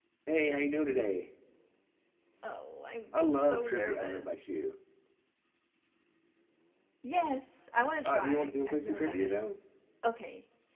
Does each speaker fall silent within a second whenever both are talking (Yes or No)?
No